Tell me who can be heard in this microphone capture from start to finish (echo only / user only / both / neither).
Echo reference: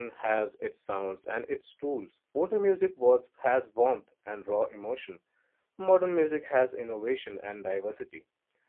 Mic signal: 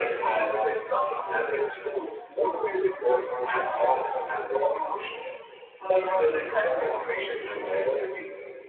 echo only